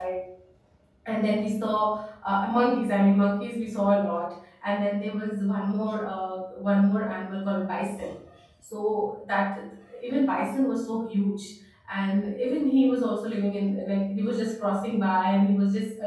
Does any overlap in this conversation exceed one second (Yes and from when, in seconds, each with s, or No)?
No